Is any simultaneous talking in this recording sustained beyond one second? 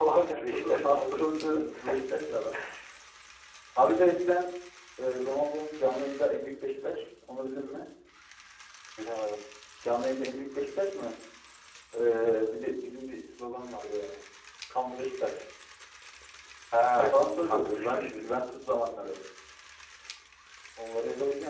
Yes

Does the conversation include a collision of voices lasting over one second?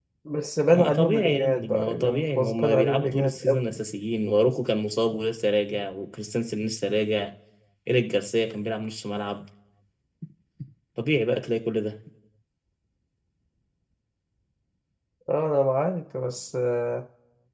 Yes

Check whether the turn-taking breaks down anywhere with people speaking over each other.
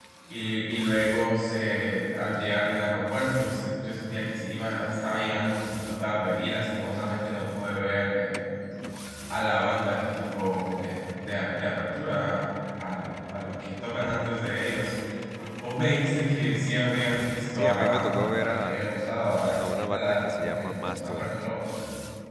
Yes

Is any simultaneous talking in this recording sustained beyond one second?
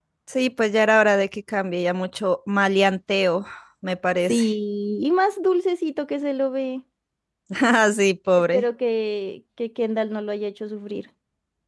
No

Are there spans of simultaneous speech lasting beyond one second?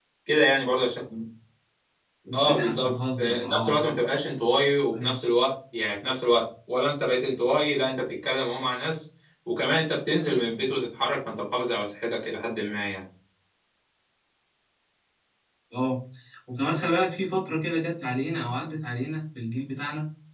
Yes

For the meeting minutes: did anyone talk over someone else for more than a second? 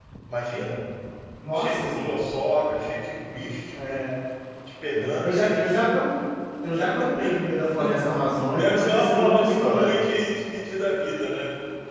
Yes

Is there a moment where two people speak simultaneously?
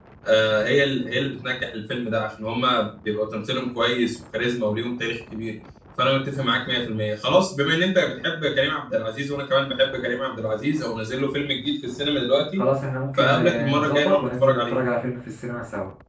Yes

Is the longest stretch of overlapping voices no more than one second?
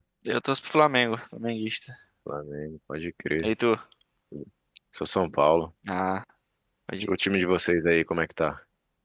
Yes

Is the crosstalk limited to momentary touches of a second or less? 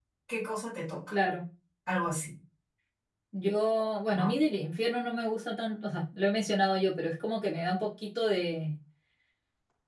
Yes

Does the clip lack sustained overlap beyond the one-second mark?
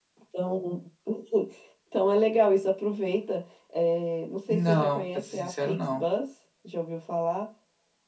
No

